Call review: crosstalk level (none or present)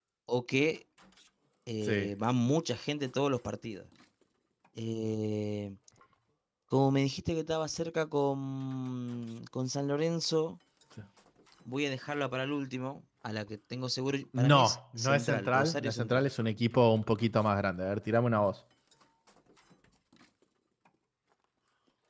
present